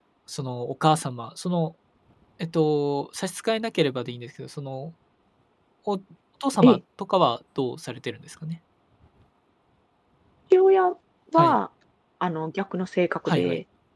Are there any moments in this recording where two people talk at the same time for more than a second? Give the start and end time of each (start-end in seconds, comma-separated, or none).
none